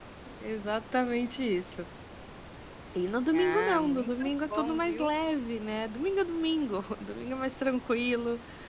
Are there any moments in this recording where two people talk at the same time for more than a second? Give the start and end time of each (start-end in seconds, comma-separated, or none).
3.3-5.1